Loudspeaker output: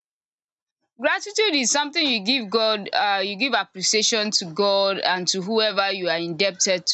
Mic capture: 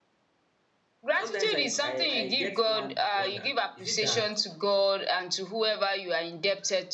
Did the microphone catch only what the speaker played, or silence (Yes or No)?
No